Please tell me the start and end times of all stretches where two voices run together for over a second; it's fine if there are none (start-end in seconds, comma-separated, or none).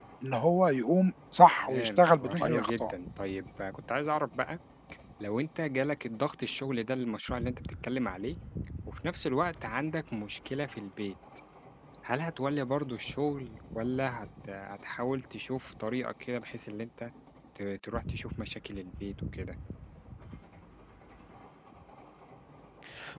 1.6-2.9